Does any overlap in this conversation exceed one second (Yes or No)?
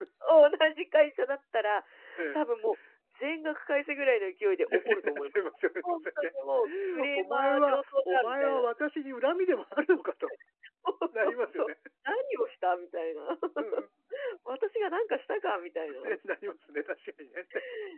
Yes